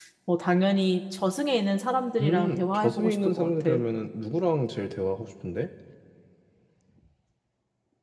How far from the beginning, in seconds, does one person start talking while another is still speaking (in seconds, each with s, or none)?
2.2 s